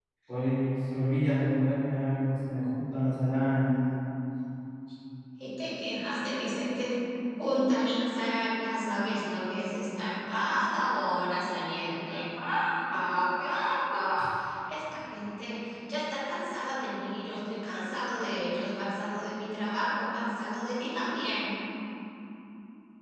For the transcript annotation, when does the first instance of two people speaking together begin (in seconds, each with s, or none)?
none